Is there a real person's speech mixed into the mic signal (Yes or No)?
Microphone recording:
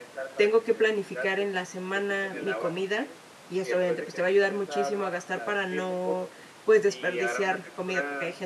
Yes